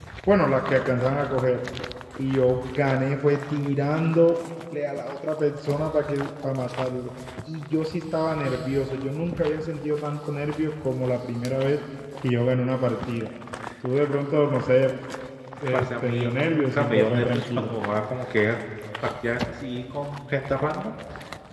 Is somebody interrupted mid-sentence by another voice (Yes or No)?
Yes